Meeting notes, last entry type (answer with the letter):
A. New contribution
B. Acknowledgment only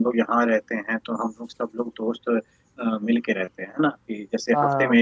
B